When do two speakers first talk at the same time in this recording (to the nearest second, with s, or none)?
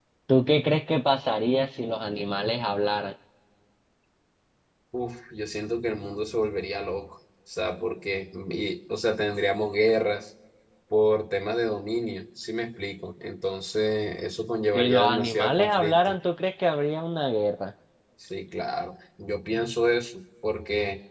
15 s